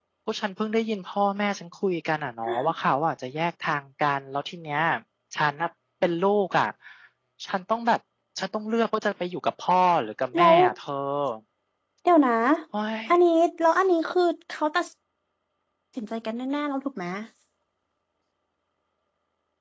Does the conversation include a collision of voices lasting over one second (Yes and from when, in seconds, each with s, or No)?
No